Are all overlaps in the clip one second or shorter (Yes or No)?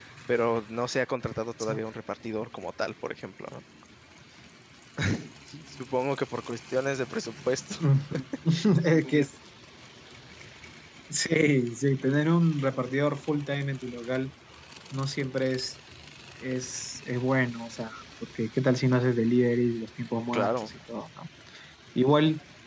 Yes